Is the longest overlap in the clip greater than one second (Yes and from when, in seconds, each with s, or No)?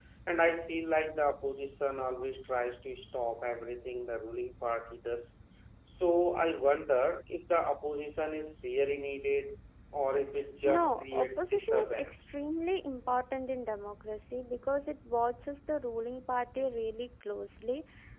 Yes, from 10.6 s